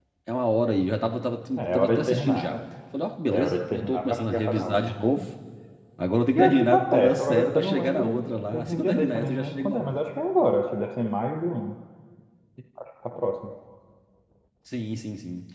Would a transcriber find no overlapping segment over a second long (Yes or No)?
No